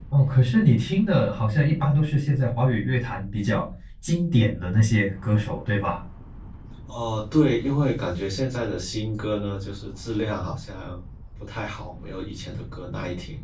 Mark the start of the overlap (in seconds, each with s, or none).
none